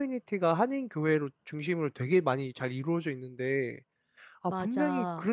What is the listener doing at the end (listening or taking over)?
listening